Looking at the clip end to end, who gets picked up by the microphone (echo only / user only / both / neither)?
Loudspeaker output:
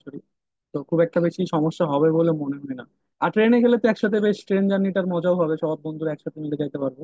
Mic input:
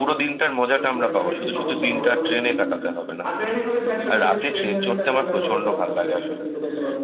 both